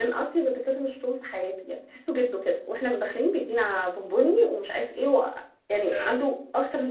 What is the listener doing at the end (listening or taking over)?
listening